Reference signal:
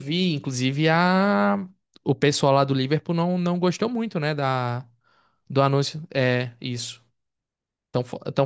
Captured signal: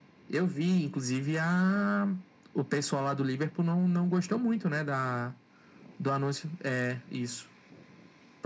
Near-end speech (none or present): none